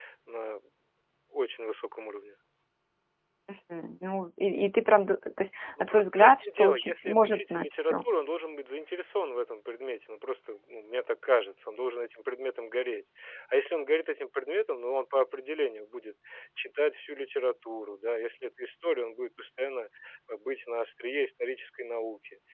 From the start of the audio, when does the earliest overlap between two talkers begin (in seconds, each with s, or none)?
5.8 s